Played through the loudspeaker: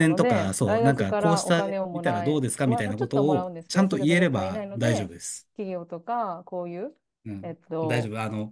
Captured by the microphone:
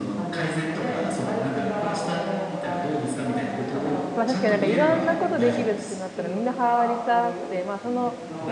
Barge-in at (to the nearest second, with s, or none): 4 s